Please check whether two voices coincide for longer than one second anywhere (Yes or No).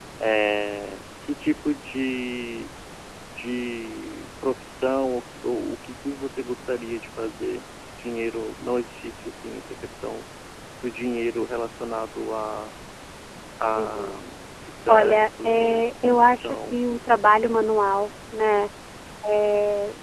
Yes